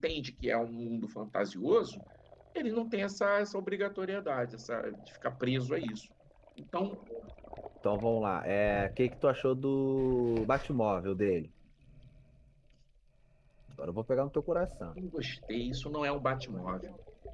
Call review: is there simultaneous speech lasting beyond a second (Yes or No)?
No